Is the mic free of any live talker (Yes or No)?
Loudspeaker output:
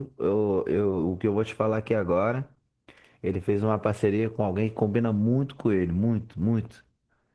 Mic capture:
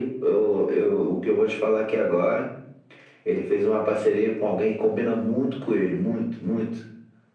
Yes